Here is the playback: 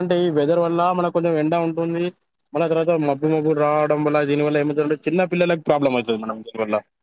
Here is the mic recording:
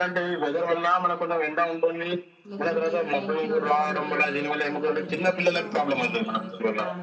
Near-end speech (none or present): present